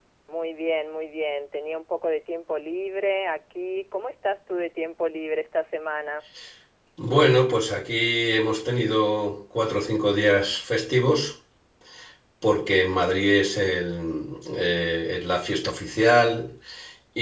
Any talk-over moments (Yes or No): No